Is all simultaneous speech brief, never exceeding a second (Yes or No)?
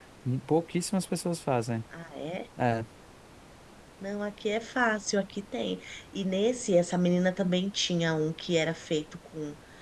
Yes